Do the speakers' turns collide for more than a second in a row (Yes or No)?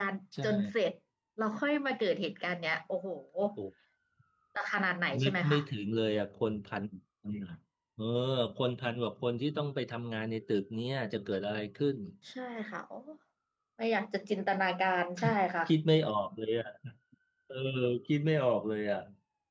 No